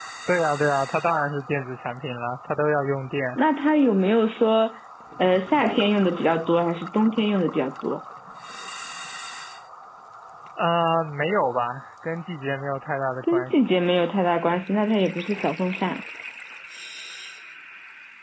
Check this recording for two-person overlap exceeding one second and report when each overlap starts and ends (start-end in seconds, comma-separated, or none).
none